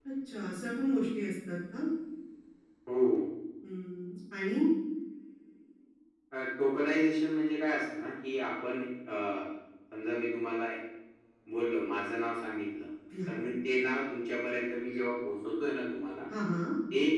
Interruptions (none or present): none